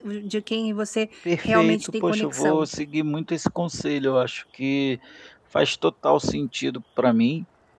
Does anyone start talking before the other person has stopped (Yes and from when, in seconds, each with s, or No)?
Yes, from 1.2 s